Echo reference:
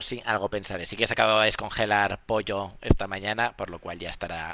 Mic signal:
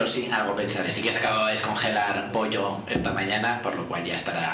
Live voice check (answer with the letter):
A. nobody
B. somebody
B